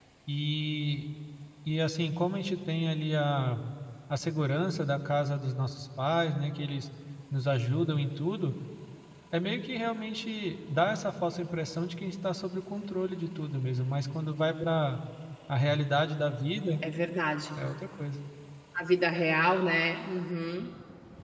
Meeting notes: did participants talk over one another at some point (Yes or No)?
No